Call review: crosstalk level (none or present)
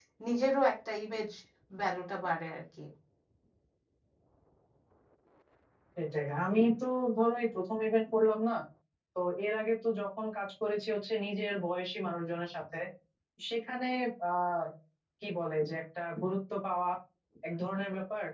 none